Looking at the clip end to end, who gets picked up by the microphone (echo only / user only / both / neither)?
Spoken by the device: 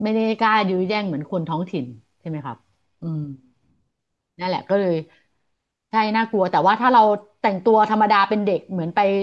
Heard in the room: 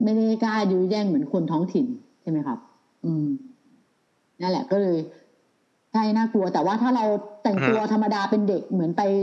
both